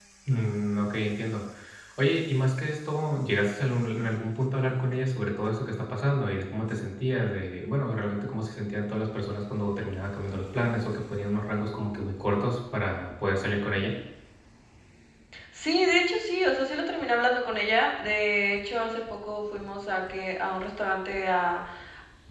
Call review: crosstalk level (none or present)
none